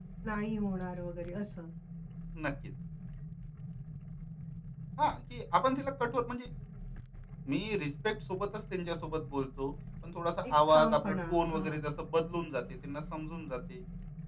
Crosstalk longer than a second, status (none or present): present